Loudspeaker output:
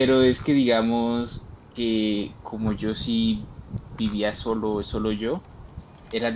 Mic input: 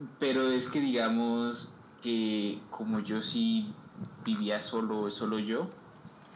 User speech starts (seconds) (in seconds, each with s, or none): none